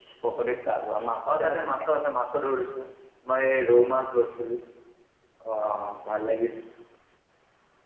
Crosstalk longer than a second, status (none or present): none